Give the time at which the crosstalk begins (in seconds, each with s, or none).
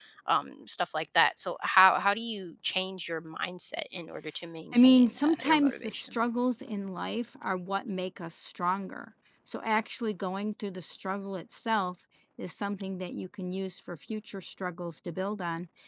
4.7 s